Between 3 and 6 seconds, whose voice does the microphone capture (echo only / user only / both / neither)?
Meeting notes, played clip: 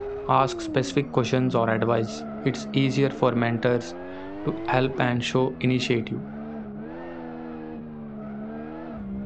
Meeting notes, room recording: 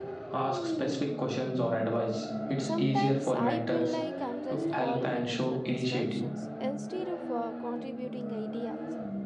both